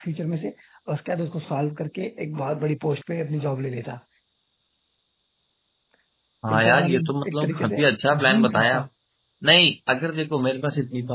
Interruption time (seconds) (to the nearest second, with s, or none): 7 s